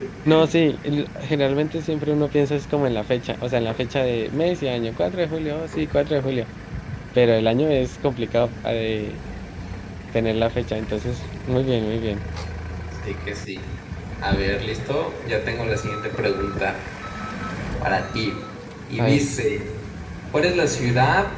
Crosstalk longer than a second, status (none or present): none